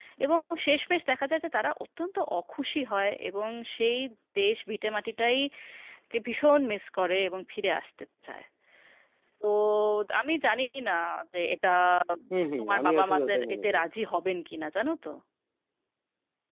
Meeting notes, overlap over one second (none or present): present